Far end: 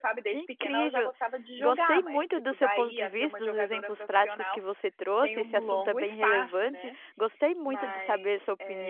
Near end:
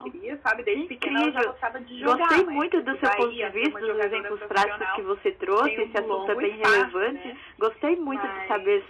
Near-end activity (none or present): none